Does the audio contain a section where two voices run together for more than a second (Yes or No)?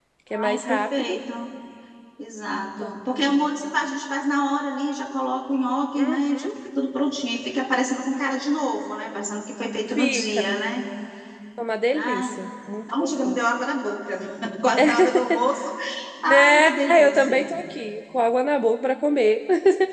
Yes